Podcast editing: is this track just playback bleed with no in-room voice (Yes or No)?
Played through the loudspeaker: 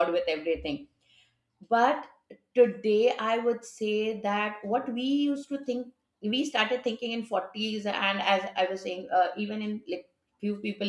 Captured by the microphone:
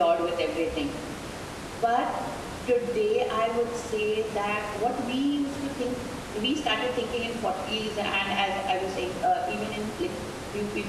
Yes